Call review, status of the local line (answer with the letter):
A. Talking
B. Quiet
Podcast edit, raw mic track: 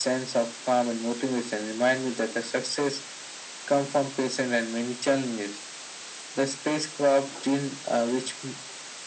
B